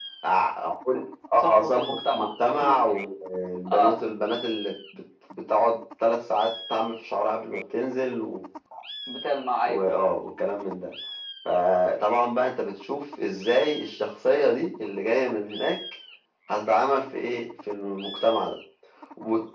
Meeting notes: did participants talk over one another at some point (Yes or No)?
Yes